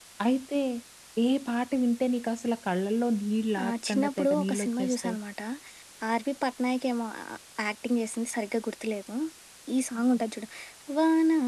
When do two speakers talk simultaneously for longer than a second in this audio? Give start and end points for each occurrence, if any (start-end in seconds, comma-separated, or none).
3.6-5.2